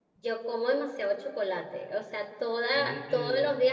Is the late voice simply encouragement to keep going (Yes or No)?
Yes